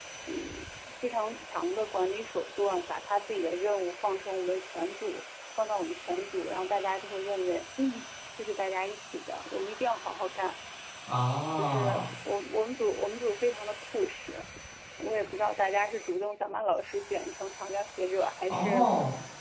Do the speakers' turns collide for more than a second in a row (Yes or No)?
No